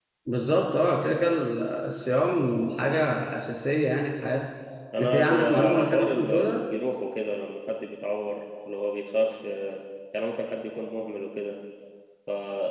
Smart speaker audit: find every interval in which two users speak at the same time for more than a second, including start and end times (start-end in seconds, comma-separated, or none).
5.0-6.6